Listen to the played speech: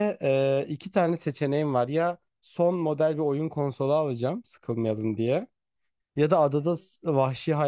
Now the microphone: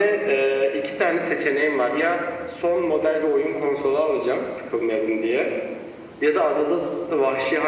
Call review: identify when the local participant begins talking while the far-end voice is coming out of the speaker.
none

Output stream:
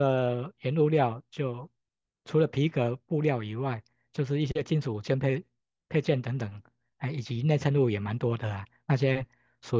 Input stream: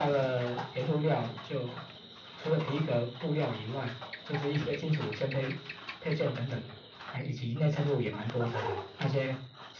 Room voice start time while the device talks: none

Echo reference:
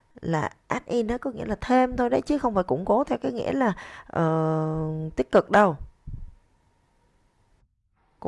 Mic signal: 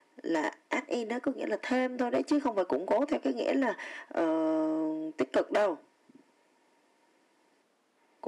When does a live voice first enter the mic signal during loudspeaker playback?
none

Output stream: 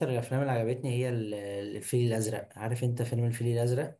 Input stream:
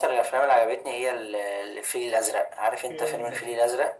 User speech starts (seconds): 2.8 s

